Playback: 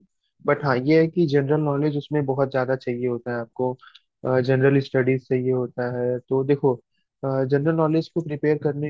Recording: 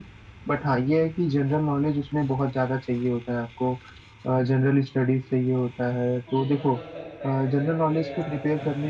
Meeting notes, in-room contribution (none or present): present